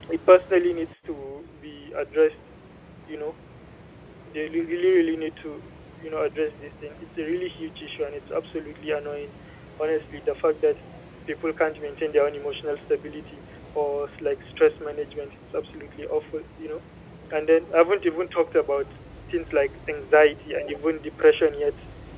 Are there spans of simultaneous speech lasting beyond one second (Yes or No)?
No